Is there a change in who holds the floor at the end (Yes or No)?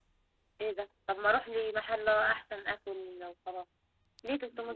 Yes